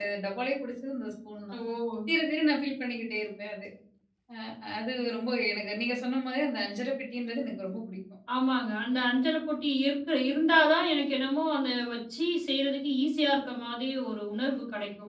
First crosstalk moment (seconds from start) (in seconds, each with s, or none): none